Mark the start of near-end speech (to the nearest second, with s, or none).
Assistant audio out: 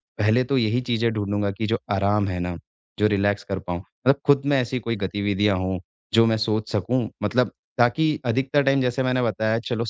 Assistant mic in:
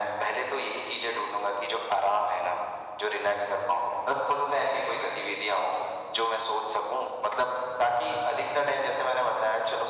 none